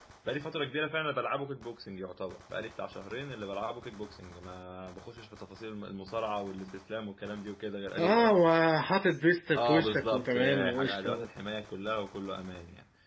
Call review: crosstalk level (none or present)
present